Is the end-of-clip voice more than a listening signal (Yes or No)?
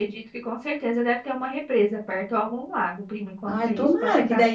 Yes